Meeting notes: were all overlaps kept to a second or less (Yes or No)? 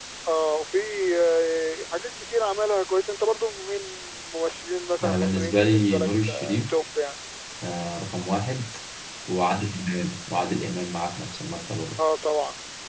No